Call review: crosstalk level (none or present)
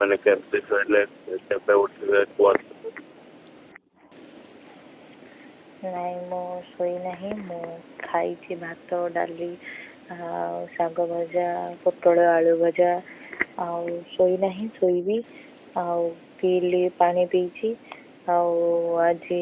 none